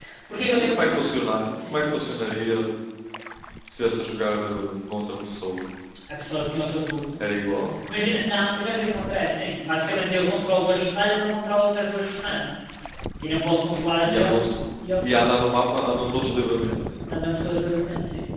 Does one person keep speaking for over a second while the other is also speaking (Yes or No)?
No